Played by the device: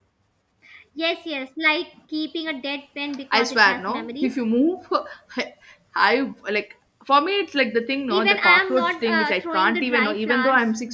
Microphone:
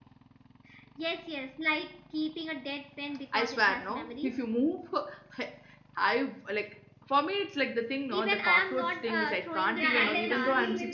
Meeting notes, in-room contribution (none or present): present